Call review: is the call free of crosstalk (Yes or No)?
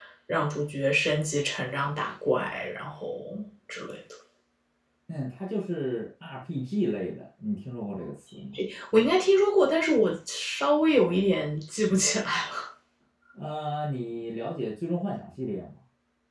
Yes